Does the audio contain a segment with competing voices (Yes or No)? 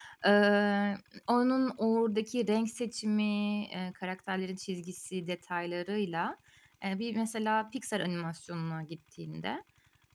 No